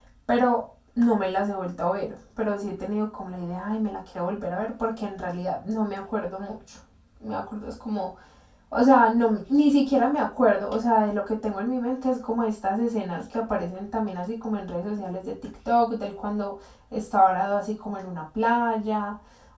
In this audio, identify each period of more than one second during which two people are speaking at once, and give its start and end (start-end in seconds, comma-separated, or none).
none